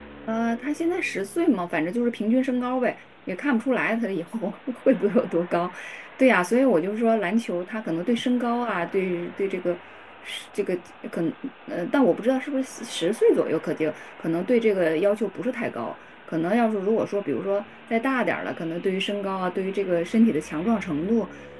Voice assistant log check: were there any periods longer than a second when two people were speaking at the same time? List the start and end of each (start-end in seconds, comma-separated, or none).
none